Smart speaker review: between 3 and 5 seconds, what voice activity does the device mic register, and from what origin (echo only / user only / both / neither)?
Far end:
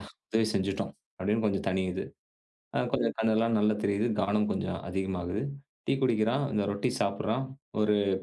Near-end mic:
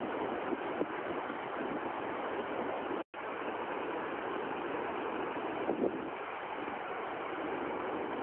neither